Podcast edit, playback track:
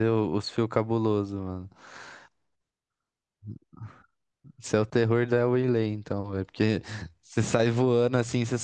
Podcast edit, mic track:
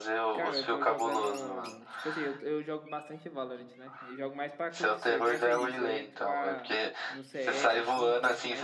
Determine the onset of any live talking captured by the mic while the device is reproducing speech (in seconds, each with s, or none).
0.3 s